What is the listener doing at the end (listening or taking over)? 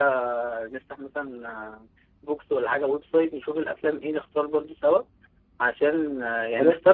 listening